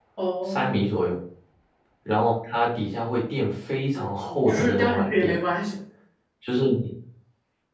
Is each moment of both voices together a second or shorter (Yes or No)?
No